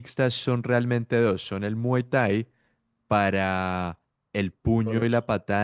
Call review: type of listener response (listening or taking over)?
listening